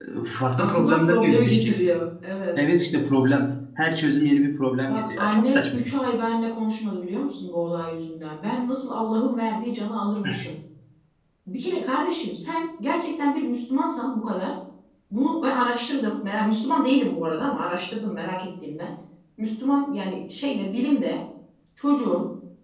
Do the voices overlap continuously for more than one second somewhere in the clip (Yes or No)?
Yes